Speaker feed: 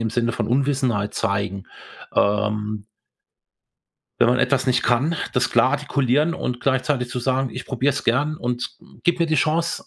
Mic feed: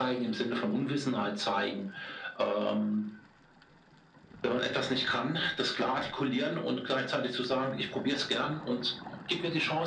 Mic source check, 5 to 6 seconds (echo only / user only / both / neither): echo only